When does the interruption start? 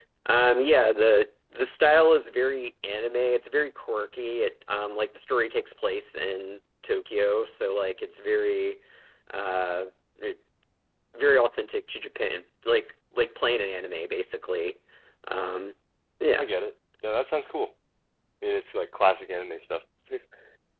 none

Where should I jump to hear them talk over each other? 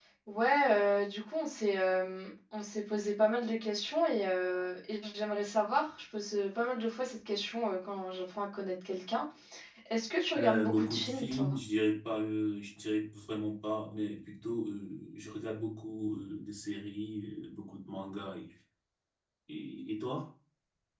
10.4 s

